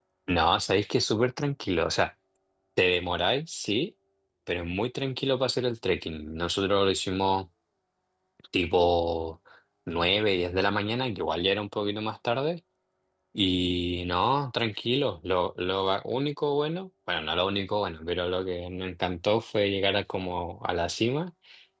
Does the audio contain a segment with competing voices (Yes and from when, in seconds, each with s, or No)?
No